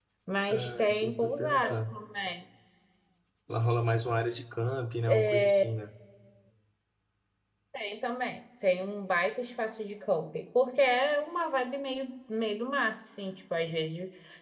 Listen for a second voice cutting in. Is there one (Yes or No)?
Yes